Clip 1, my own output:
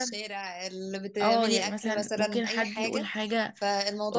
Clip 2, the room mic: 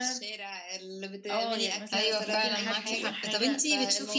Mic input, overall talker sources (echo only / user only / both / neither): both